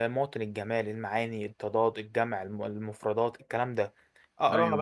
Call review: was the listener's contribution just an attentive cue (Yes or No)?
Yes